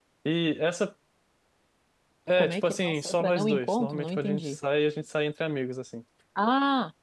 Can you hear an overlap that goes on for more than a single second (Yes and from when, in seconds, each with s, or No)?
Yes, from 2.4 s